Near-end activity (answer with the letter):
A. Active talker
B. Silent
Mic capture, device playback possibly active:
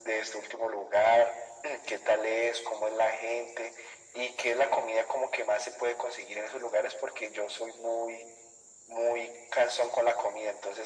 B